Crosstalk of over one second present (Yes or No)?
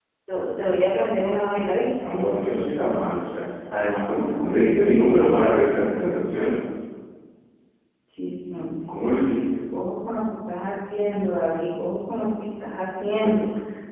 No